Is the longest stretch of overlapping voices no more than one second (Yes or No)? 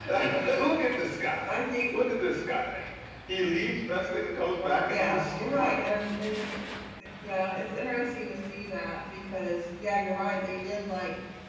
No